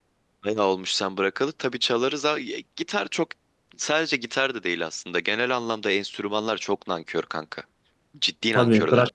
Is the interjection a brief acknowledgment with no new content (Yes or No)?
No